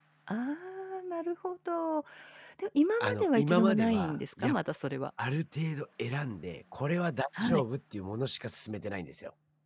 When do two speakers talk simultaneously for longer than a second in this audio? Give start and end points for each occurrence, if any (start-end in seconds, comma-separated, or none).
3.0-4.5